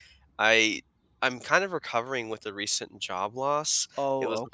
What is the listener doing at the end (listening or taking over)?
listening